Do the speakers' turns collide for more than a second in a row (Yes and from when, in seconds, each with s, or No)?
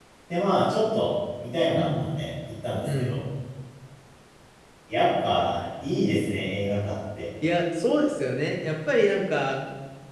No